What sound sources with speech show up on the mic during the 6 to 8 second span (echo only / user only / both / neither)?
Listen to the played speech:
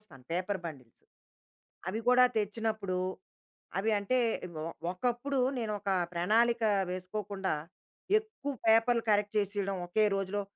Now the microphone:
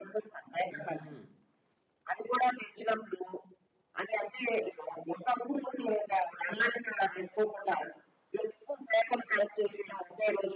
echo only